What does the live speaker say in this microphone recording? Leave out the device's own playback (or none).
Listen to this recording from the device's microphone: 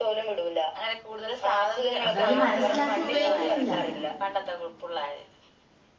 അതവര് മനസ്സിലാക്കി ഉപയോയ്ക്കിന്നില്ല